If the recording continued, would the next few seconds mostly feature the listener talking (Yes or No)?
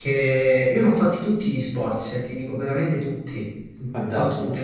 No